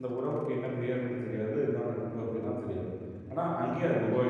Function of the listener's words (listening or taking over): taking over